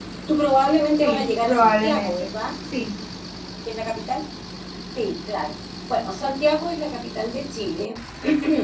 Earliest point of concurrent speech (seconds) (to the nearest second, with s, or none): 1 s